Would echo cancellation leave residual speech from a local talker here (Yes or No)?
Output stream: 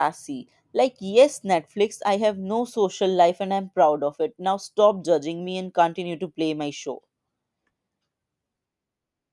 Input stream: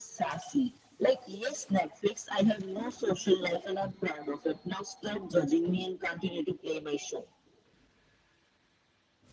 No